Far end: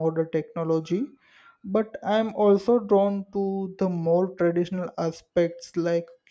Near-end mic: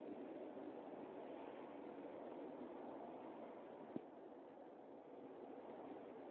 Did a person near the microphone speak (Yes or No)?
No